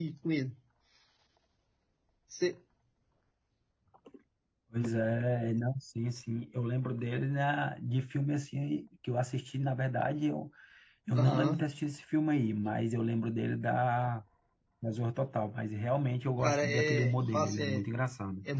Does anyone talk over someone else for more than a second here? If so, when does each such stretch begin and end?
16.4-17.9

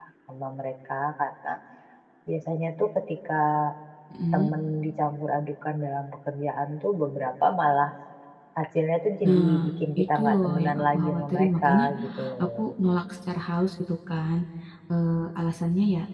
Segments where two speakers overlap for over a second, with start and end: 10.0-11.6

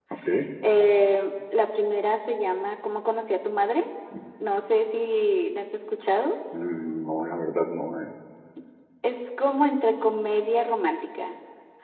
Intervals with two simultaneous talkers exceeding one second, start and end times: none

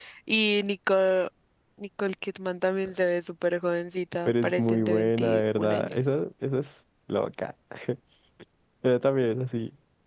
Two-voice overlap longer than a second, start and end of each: 4.3-5.9

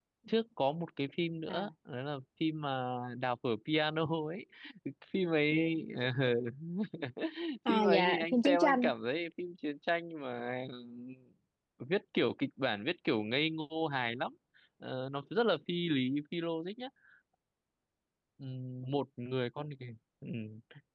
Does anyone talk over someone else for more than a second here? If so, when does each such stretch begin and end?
7.7-8.9

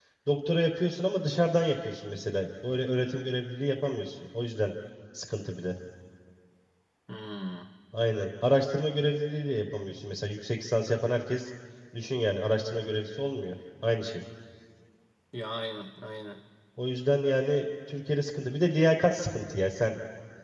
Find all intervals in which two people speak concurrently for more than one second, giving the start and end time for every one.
none

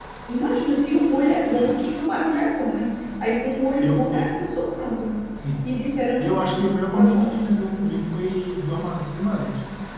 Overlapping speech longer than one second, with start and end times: none

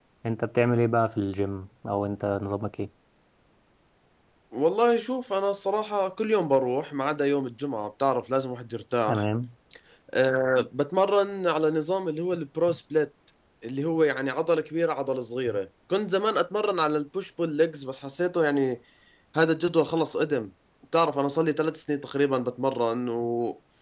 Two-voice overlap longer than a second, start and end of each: none

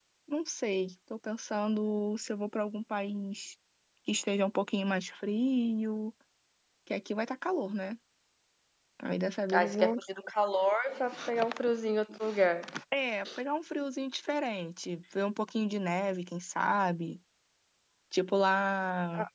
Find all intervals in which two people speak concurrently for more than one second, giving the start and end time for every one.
none

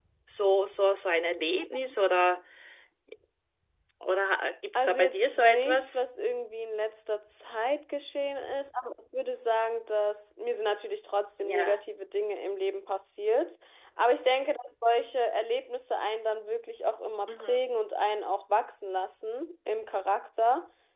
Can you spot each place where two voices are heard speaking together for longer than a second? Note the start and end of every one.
4.8-6.0

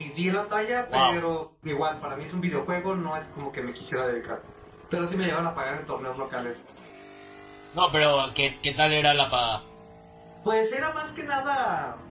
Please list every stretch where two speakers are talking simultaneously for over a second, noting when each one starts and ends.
none

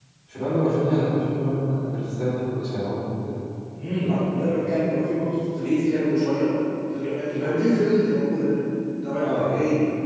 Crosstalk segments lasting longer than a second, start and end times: none

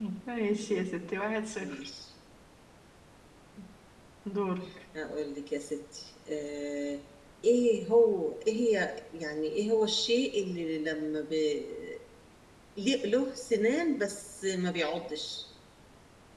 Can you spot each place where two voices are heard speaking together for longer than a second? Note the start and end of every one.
none

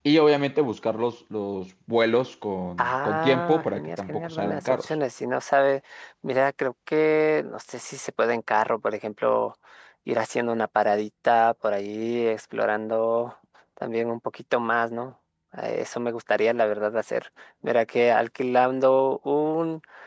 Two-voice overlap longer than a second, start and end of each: 2.8-4.9

